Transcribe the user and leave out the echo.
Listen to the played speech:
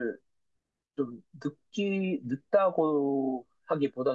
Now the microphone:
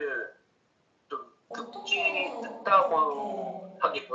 어떻게 해서 그렇게

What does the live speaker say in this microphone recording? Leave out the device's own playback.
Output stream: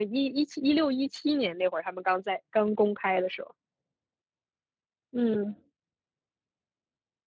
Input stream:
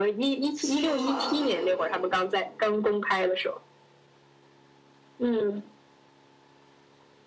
戏路团戏路通。

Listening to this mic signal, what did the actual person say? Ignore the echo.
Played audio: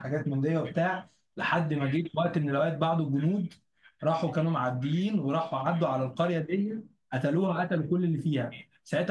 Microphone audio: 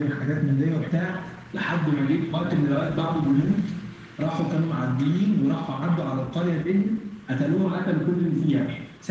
none

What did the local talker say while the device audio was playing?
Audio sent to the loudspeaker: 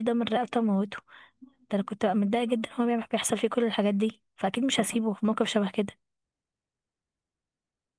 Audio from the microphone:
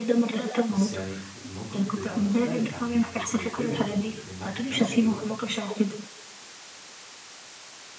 بس يعني الموقف بيبقى مختلف عن ان انت في الفيلم انت تبقى في الموقف نفسه دلوقتي

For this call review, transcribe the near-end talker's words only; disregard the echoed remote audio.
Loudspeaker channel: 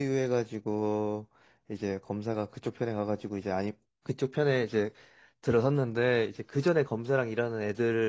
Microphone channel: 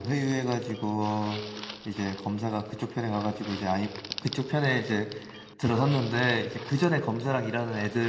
none

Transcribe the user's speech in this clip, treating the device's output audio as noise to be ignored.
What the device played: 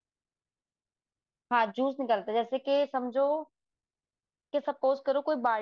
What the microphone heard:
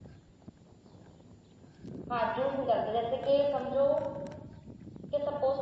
none

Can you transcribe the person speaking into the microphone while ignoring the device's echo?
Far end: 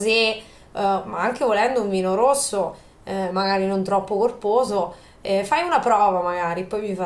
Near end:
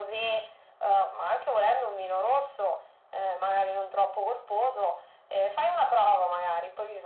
none

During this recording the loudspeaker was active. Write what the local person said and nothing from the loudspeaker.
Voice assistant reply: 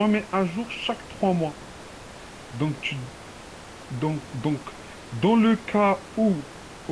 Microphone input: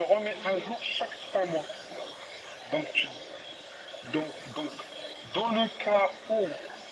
none

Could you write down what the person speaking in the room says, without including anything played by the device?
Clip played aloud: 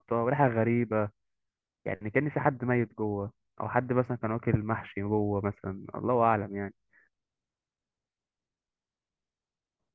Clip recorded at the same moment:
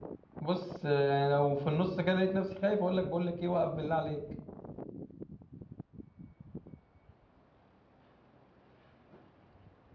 بص آه، يعني لو في النص كده لقيت نفسي خايف اقول لك بقول لك ايه وقف بالله عليك

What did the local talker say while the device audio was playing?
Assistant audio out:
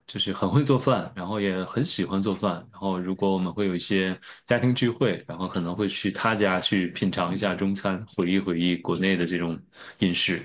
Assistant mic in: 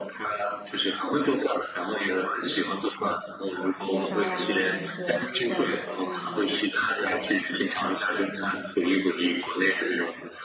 一些沙拉，我可能就这样吃一点。

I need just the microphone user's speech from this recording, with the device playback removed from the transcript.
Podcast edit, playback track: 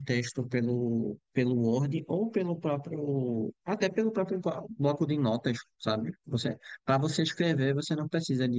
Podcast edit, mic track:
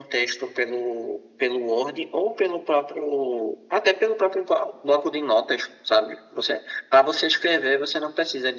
none

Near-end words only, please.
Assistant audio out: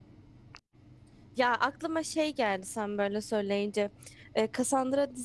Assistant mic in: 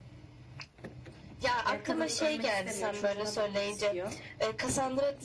Yani kadın ölmek istemiyor, çocuğuna bakmak istiyor.

